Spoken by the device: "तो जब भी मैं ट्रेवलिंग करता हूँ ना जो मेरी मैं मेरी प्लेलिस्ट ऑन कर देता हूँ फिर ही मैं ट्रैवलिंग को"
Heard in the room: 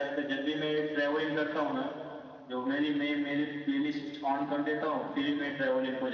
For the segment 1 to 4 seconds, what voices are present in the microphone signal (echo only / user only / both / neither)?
echo only